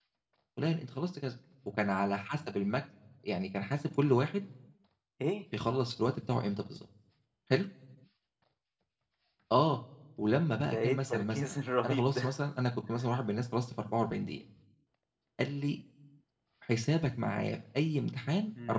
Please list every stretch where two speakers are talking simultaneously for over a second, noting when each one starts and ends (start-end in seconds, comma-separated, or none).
10.6-12.3